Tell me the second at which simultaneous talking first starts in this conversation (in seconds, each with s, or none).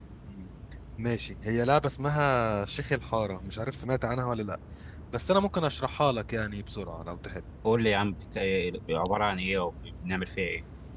none